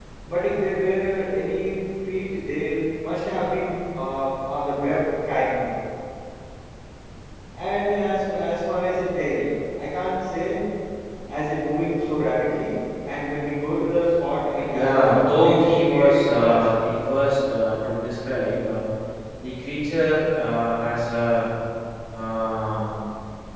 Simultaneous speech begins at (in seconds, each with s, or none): 14.7 s